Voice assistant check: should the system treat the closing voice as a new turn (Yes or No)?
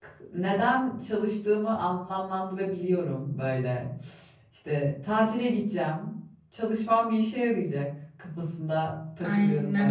Yes